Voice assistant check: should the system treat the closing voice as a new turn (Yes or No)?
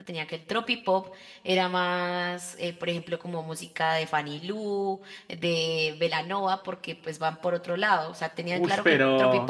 No